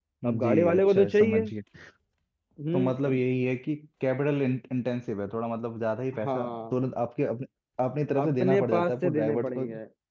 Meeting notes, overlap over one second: present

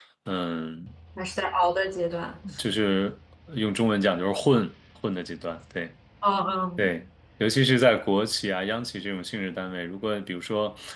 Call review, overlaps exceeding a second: none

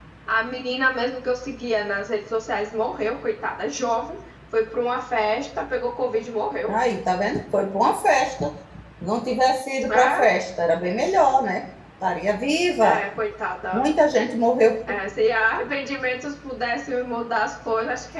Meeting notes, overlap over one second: none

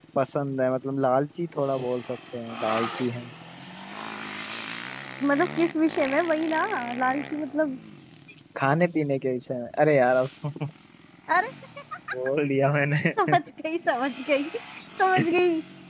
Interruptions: none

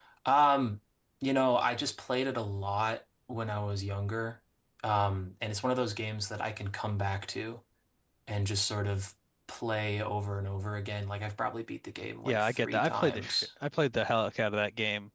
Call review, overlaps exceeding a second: present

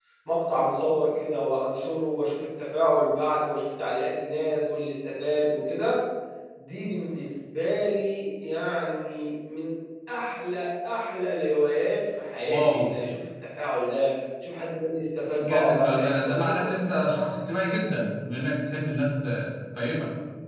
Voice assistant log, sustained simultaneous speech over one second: present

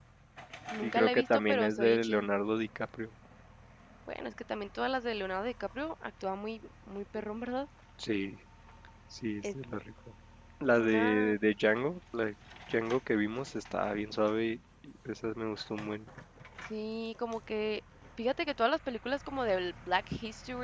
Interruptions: present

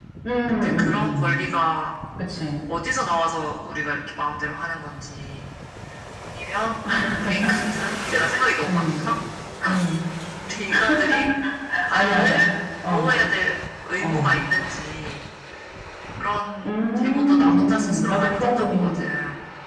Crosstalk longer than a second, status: present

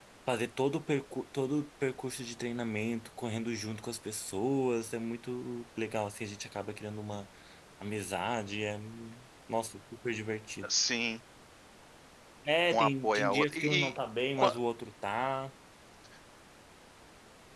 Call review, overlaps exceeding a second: present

